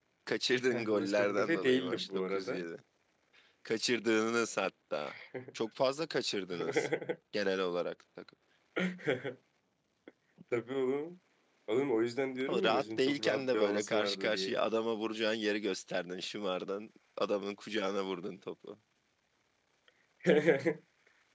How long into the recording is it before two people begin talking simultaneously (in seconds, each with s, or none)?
0.7 s